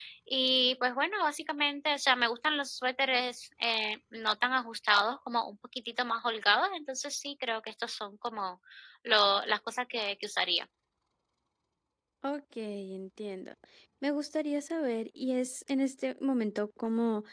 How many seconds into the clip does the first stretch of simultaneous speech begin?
none

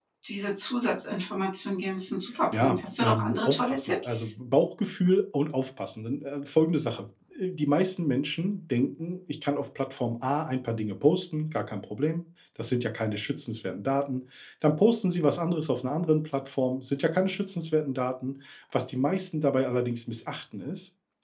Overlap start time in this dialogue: 3 s

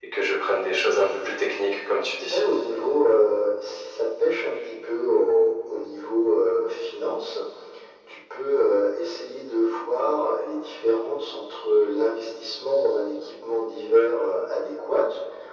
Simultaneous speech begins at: none

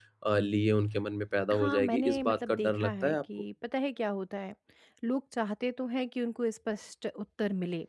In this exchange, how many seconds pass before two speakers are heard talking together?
2 s

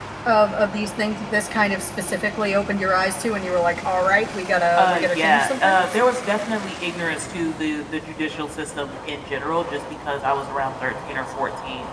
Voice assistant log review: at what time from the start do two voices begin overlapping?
5 s

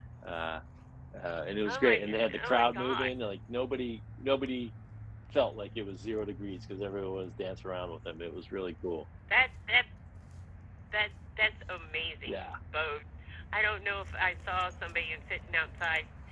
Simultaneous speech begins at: 2 s

